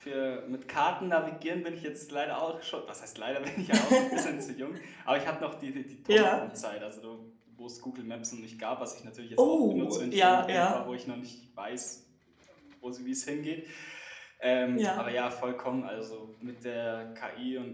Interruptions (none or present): present